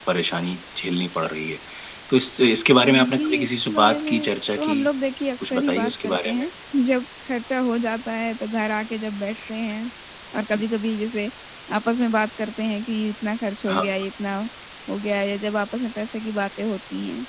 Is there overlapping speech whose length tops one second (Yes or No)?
Yes